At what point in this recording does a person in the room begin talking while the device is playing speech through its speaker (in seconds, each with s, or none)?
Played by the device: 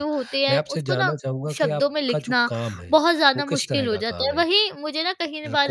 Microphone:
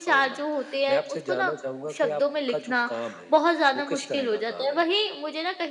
none